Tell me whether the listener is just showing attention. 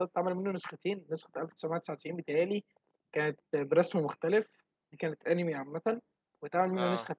Yes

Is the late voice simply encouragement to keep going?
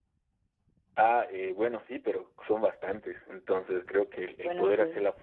Yes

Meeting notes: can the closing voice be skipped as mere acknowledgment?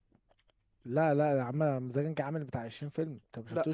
Yes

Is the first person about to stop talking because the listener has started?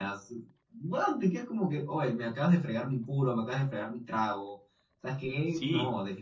Yes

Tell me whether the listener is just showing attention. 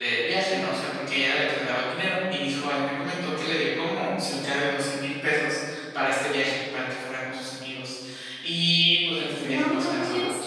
No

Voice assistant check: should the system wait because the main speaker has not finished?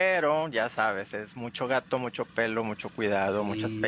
No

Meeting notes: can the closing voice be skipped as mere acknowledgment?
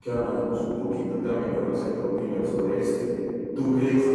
Yes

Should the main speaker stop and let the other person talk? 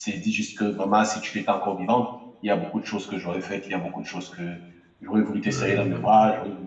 No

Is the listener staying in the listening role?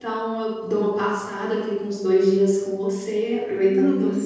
No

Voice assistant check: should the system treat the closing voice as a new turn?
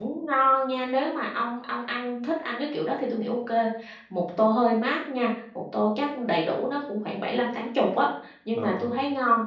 No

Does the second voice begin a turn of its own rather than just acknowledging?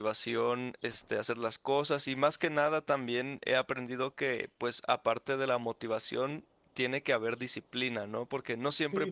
Yes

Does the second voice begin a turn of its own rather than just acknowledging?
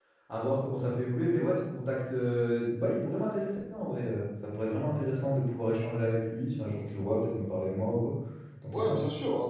Yes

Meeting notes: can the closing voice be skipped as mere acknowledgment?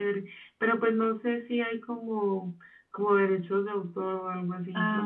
No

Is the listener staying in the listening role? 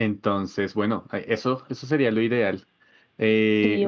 Yes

